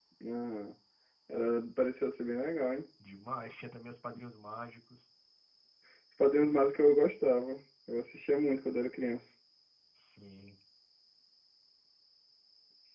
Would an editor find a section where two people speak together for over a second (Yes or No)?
No